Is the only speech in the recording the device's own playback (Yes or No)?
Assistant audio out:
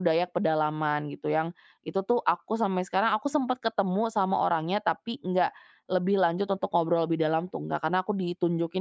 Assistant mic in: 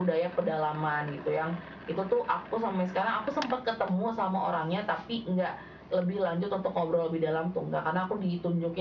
Yes